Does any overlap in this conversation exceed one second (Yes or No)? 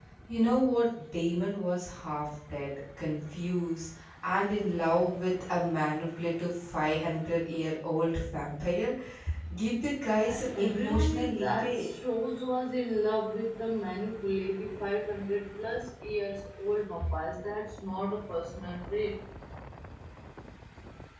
Yes